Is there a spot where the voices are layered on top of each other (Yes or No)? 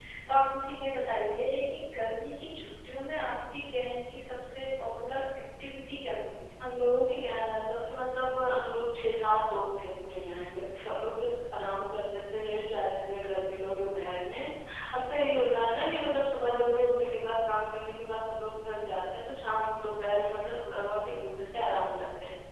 No